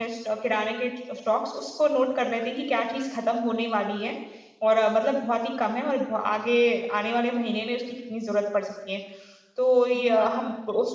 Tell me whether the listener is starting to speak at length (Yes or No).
No